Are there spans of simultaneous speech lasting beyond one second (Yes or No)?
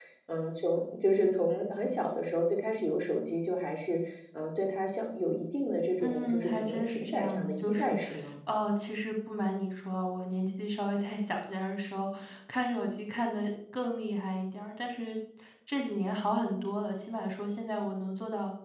Yes